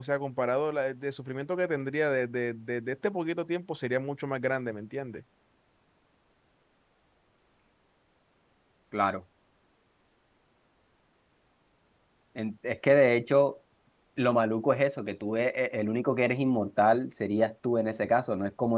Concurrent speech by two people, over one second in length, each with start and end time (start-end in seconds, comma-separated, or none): none